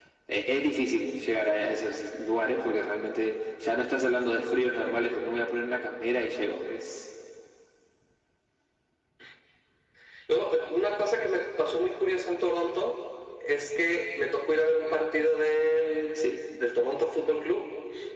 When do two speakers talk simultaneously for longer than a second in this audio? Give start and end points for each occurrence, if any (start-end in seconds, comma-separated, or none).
none